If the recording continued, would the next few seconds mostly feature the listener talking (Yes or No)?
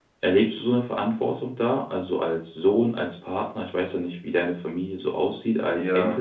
Yes